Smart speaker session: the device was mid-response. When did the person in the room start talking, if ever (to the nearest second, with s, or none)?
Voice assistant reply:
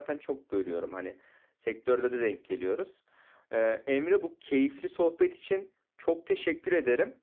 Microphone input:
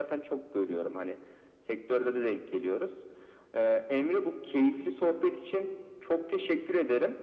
none